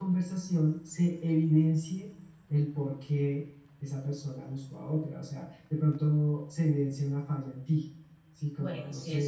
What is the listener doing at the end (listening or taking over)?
taking over